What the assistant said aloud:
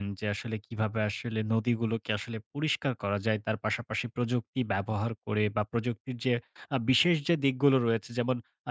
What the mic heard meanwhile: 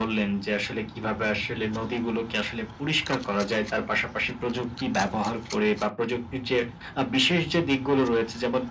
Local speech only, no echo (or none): none